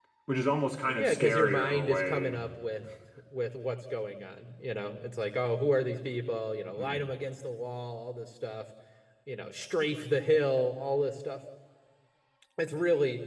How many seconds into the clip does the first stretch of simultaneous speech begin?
0.9 s

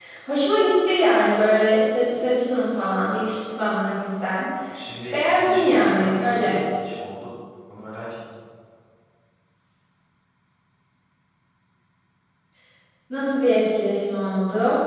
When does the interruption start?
5.1 s

